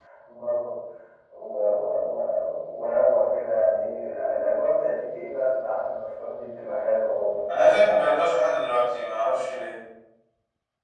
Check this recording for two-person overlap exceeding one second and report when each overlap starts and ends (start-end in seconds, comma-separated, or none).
none